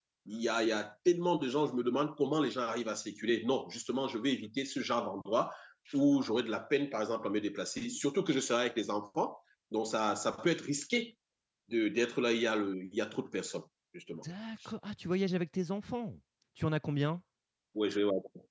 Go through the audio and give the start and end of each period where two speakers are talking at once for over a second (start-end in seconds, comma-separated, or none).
none